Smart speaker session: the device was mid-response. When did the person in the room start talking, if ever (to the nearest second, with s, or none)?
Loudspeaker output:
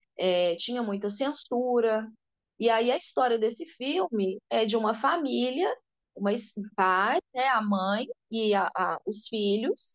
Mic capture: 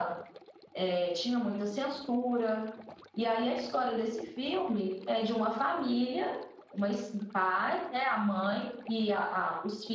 none